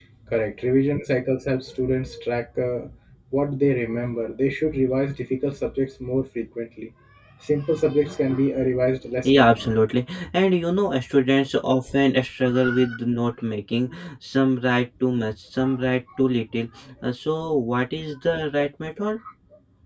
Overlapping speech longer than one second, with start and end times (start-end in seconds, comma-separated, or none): none